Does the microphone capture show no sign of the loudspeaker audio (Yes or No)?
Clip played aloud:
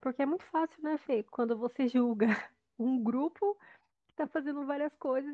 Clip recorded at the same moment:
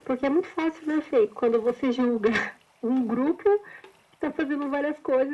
No